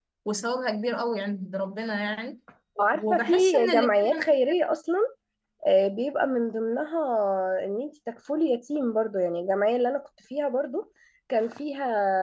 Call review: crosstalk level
present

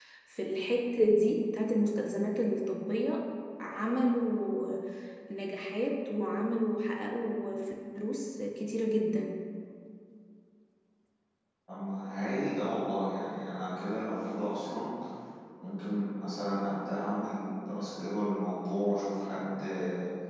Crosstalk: none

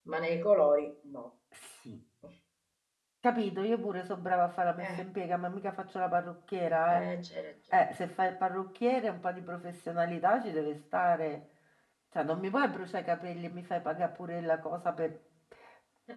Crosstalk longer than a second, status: none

